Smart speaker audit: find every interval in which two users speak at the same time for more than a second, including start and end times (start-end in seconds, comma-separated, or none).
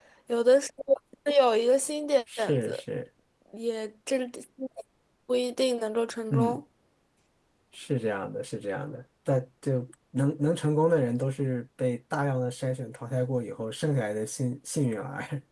none